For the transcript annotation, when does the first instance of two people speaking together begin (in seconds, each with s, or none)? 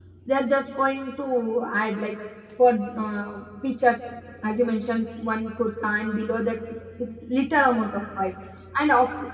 none